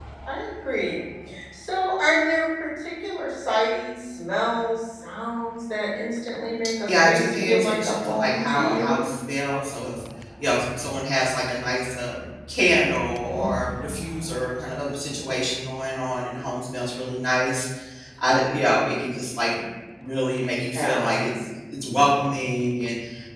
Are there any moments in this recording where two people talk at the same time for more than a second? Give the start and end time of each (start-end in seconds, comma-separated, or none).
6.9-9.1